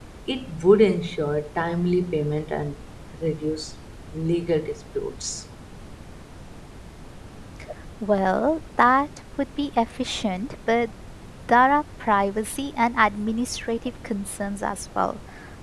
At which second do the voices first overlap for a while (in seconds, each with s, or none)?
none